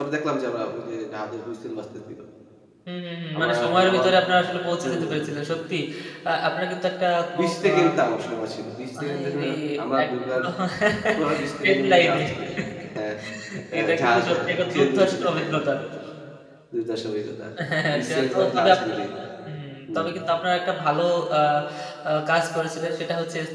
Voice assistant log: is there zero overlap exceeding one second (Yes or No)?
No